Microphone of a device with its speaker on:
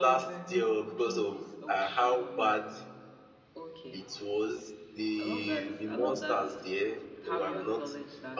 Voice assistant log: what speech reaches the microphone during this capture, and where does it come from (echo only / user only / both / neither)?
both